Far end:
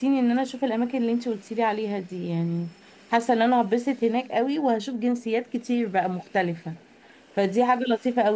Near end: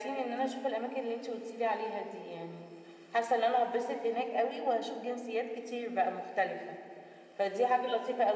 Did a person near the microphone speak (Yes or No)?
No